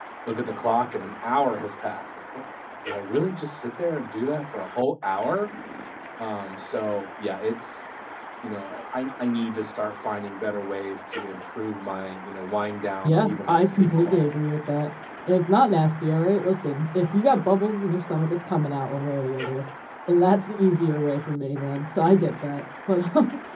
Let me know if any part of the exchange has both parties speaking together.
Yes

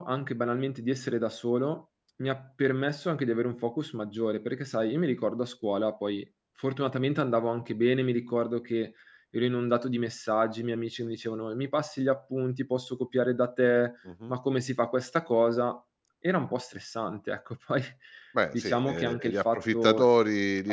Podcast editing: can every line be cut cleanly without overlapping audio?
No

